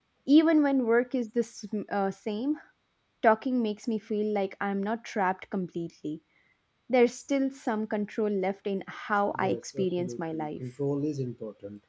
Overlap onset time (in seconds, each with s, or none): 9.3 s